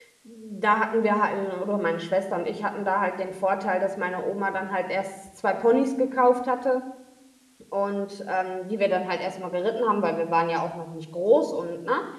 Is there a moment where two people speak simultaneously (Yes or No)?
No